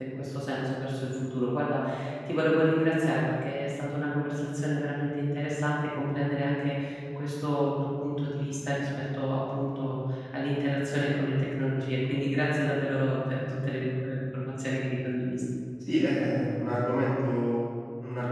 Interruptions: none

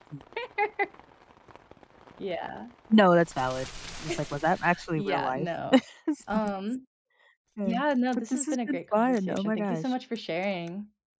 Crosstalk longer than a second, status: present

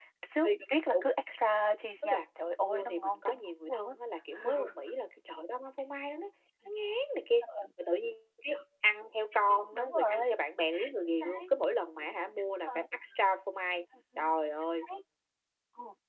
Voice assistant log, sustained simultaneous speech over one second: present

